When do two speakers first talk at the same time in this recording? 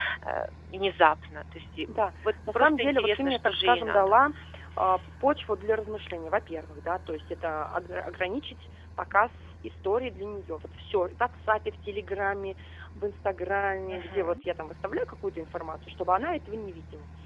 2 s

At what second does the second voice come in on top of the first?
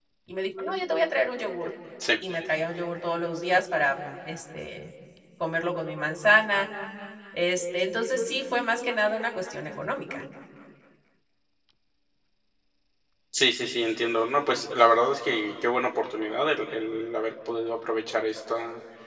none

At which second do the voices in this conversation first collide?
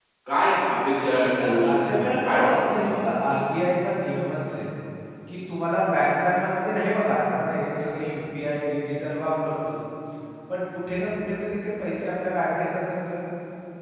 1 s

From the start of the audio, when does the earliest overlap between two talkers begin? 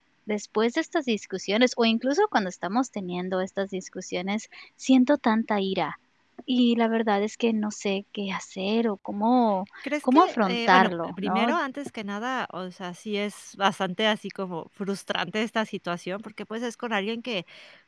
10 s

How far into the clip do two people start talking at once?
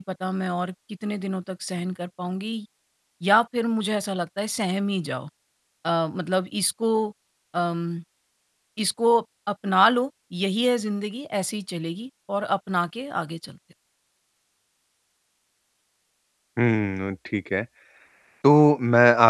none

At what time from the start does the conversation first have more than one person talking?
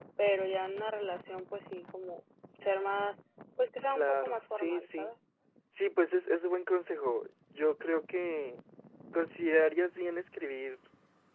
4 s

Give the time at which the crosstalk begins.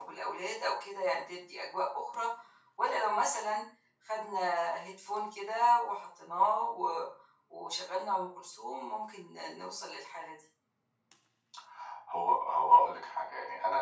none

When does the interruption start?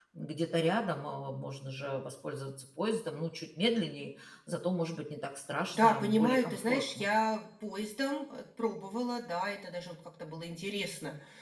6 s

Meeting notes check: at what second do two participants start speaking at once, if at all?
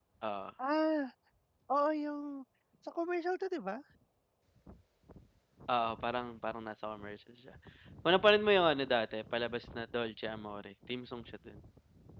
none

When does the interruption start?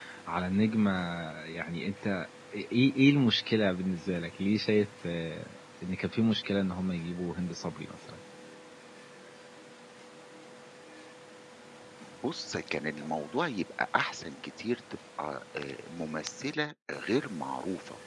none

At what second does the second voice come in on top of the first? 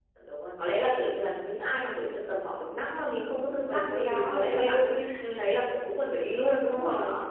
4 s

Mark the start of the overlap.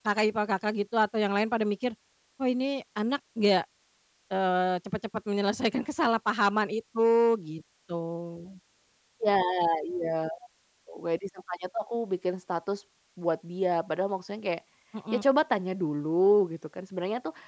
none

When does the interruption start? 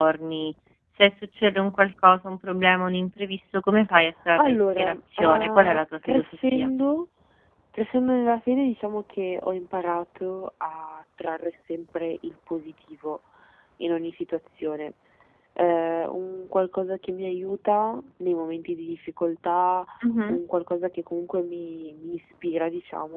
4 s

